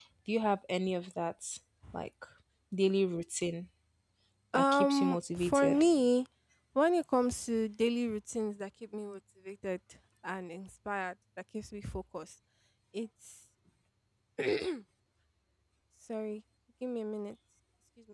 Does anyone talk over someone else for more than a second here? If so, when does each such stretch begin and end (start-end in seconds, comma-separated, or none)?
4.5-5.9